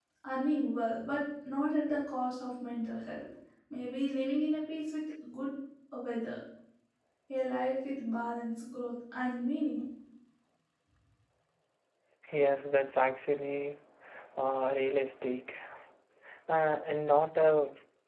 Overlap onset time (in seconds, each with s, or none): none